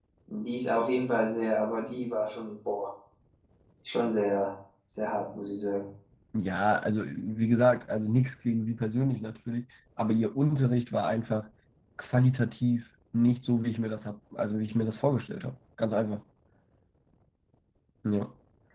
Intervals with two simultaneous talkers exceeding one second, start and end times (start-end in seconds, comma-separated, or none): none